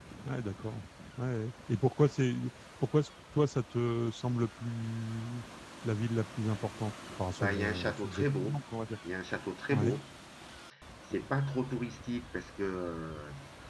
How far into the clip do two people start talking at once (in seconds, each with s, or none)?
7.4 s